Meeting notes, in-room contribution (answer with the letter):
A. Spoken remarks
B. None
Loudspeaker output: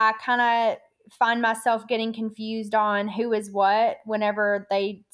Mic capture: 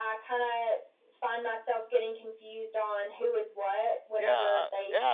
A